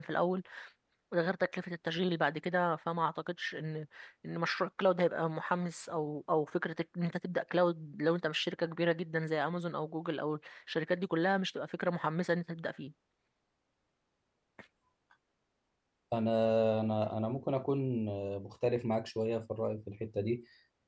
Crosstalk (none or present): none